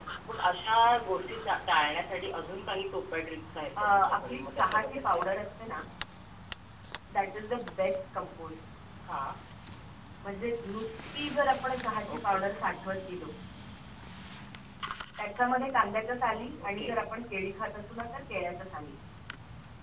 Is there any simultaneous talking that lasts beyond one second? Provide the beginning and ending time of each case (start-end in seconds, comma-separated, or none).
3.8-5.8